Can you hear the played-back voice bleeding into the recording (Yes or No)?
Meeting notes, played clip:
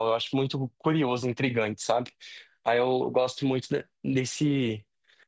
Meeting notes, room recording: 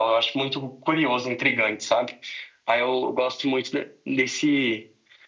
Yes